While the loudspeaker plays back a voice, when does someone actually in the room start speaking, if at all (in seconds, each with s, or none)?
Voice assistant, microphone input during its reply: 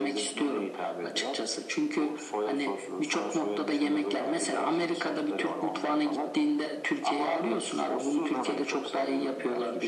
none